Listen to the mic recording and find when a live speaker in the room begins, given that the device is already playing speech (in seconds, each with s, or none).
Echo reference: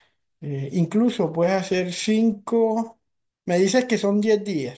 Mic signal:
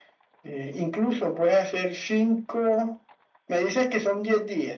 none